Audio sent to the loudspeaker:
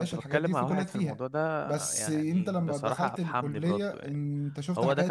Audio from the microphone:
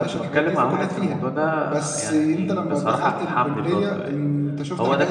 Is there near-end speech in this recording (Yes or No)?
No